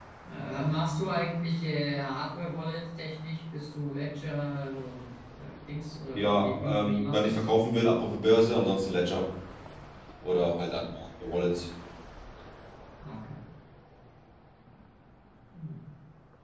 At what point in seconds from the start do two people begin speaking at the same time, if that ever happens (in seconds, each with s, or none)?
6.1 s